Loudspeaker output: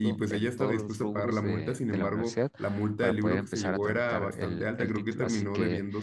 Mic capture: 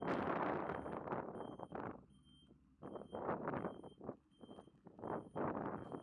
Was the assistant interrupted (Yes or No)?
No